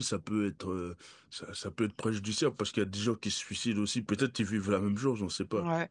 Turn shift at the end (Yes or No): Yes